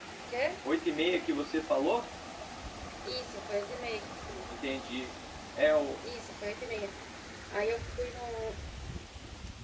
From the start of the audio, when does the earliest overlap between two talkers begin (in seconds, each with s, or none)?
none